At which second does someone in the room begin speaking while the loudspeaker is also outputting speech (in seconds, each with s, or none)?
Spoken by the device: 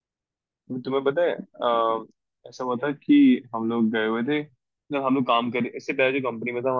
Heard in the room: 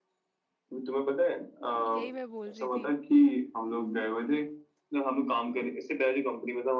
1.9 s